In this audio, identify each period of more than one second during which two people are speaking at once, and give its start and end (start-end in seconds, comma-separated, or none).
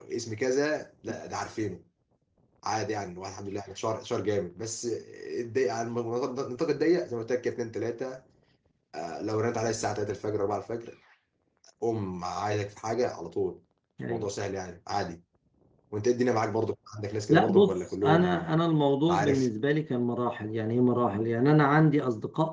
17.3-18.6